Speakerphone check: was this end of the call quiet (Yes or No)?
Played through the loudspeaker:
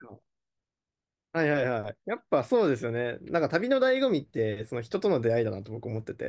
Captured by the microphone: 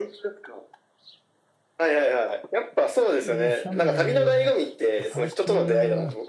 No